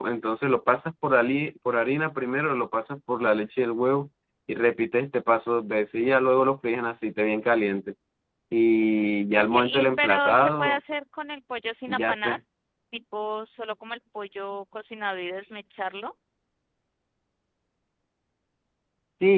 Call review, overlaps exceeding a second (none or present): present